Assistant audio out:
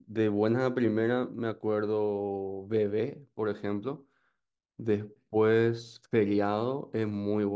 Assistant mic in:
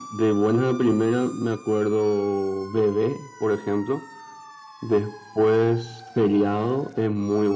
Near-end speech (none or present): none